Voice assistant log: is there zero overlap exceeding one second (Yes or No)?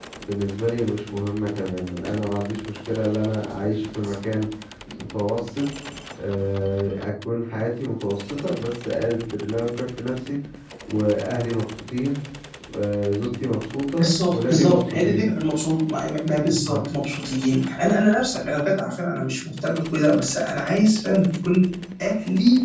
No